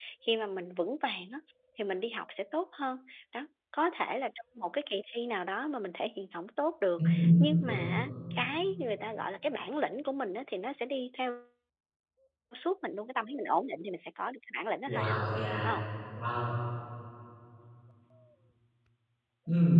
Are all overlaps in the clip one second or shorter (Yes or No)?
Yes